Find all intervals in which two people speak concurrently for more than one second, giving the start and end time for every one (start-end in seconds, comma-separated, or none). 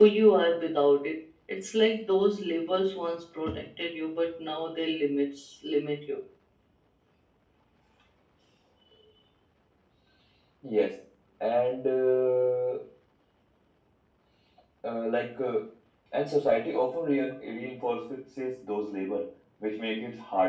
none